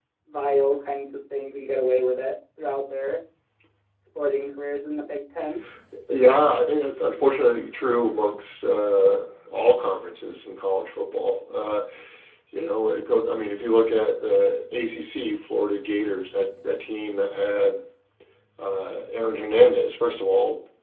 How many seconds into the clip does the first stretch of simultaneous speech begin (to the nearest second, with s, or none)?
none